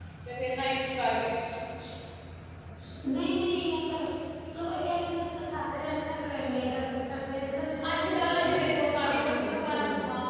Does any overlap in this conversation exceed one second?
Yes, from 7.8 s

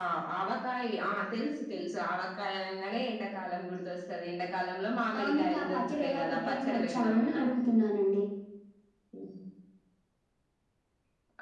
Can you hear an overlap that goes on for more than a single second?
Yes, from 5.1 s

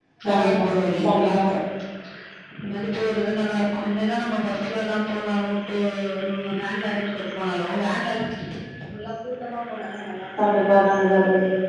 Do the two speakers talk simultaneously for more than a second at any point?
No

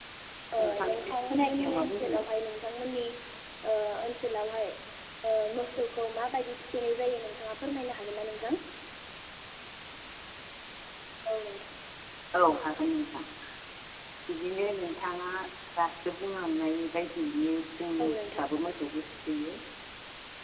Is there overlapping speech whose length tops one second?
Yes, from 0.8 s

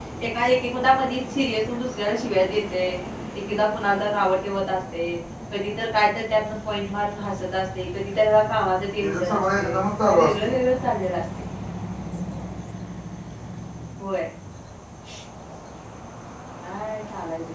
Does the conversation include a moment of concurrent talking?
Yes, from 9.0 s

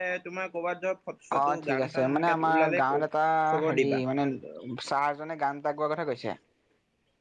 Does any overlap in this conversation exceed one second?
Yes, from 1.4 s

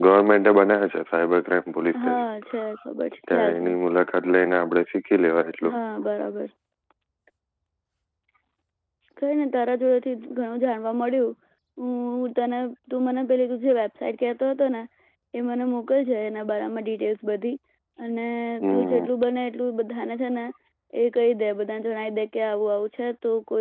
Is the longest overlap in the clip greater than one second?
No

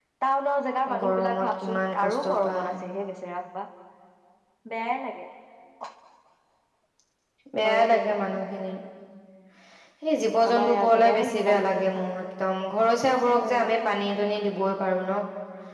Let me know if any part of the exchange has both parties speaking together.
Yes, from 1.0 s

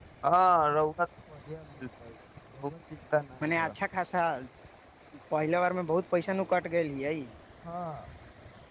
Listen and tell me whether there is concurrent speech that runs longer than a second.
No

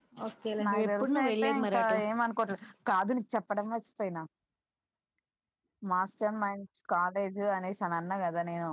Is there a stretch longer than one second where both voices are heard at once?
Yes, from 0.7 s

